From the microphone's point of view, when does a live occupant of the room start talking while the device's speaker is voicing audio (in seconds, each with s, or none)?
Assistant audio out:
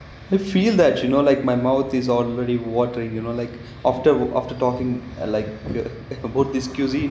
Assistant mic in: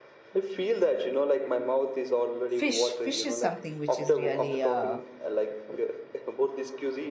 2.5 s